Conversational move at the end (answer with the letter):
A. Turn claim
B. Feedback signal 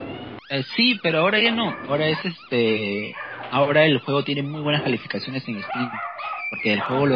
B